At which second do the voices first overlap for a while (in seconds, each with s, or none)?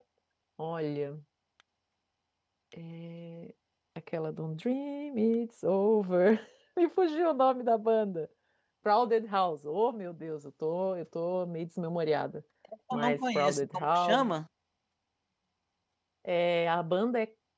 12.9 s